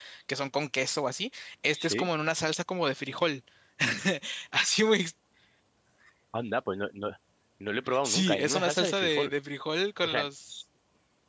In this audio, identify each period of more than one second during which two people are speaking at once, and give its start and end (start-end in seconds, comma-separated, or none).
8.0-9.3